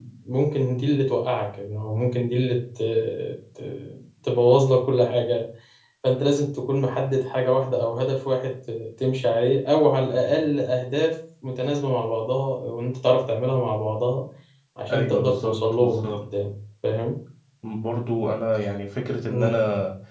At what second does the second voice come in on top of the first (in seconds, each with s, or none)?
14.9 s